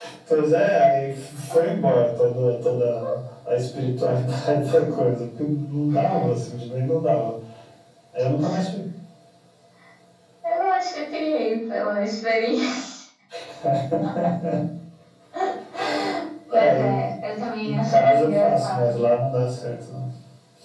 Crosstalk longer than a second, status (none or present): present